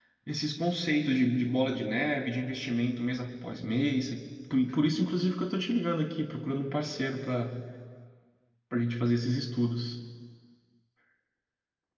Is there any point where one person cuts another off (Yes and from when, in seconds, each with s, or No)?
No